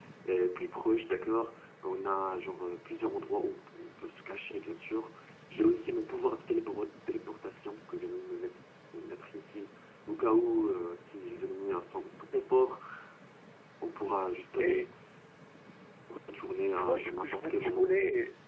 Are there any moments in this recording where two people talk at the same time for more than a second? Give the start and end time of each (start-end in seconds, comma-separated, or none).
16.7-18.0